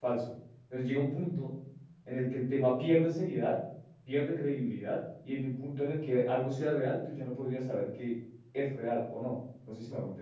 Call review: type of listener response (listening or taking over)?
taking over